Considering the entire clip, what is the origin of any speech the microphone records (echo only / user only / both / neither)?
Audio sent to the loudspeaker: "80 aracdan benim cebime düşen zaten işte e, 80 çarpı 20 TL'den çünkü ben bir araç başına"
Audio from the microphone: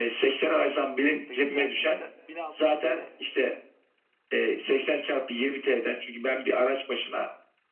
both